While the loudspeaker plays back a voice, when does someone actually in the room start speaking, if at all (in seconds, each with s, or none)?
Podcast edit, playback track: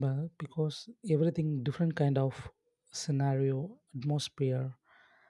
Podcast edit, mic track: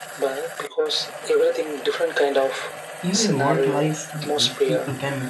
3.0 s